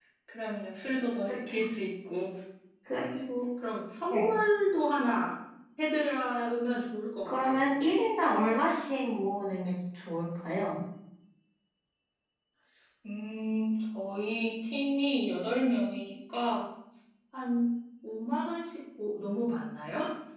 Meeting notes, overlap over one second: none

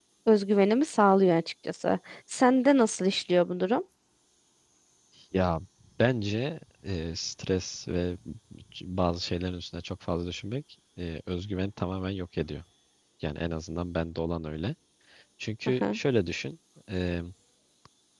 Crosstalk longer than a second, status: none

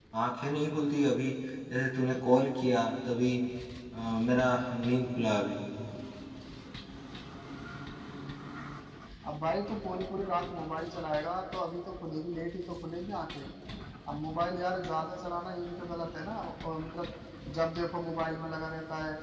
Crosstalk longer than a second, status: none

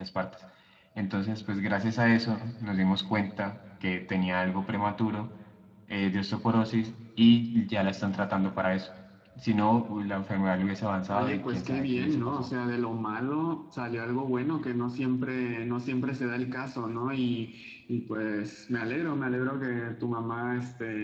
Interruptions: present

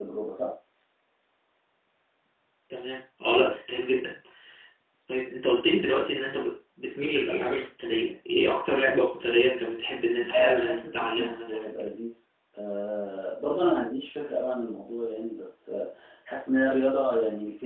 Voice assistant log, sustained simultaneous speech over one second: present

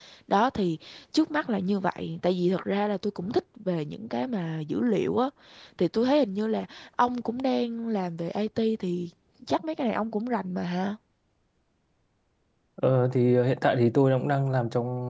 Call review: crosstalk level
none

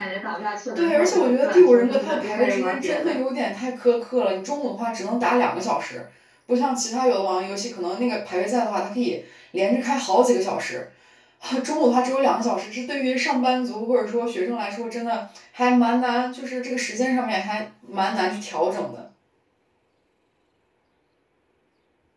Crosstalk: present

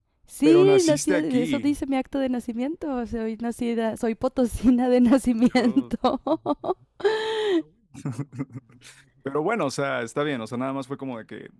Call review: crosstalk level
present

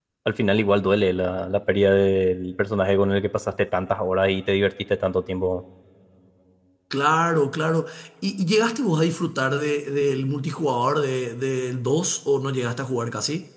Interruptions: none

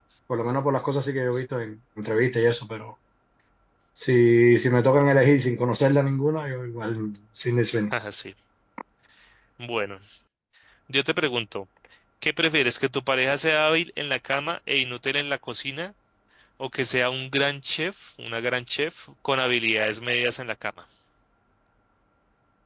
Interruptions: none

